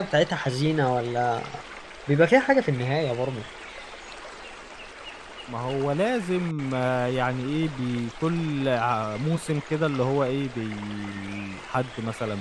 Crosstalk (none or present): none